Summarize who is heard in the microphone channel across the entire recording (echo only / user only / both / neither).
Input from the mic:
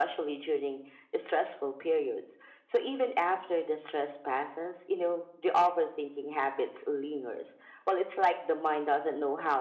echo only